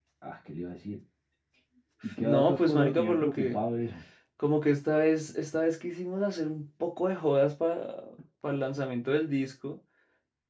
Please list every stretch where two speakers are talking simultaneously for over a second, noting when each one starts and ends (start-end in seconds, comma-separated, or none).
2.2-3.6